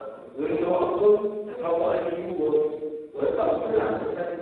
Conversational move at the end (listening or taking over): listening